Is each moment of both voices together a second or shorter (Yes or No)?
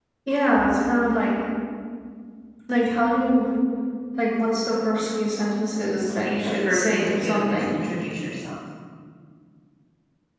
No